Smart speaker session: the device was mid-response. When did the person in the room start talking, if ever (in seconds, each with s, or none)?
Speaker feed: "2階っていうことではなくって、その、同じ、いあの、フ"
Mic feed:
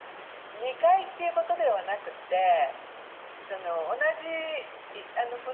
none